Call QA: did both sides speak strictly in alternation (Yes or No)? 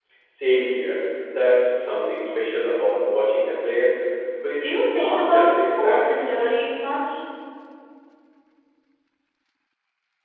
No